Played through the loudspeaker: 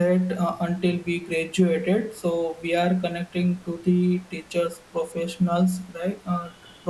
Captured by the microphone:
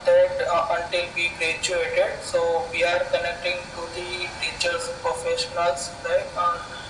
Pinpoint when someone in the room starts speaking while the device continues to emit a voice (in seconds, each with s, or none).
none